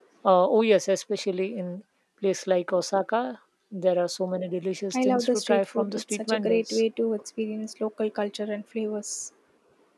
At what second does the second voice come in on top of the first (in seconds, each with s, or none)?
4.9 s